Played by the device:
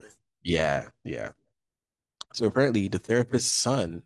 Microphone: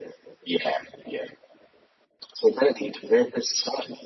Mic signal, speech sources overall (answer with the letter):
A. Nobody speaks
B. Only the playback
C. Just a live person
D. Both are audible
B